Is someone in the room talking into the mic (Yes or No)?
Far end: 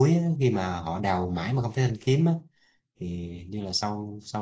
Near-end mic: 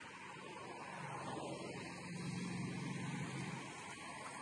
No